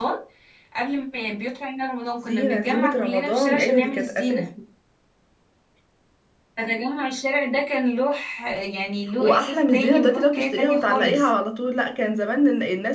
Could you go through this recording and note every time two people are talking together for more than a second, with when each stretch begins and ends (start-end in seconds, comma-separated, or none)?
2.3-4.4, 9.2-11.3